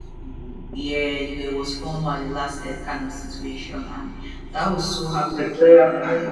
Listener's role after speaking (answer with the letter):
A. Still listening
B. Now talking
A